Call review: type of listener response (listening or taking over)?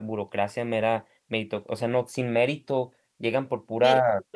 listening